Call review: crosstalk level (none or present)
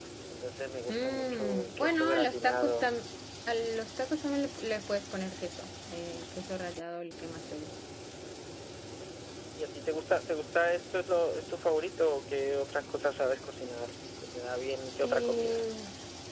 present